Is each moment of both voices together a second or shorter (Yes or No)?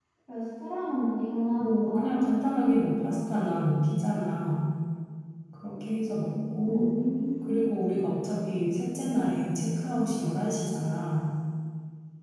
Yes